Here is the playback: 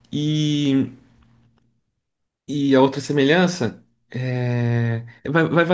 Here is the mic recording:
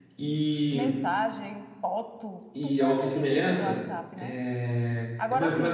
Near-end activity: present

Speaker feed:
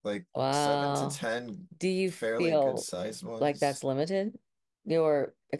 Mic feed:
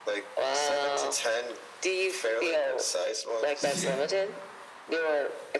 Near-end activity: present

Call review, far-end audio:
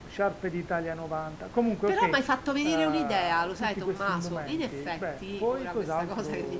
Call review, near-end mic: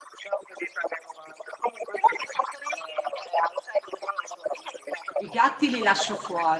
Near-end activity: present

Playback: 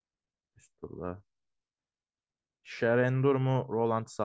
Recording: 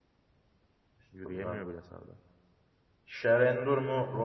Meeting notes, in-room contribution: present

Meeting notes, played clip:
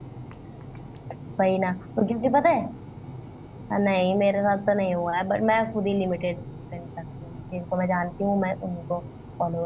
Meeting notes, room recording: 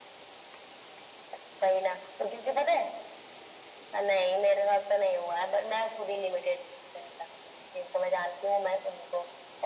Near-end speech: none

